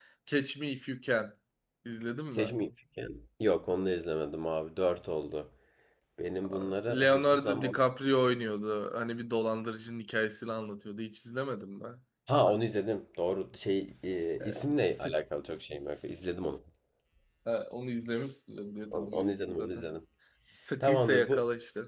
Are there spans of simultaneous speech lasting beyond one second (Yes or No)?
Yes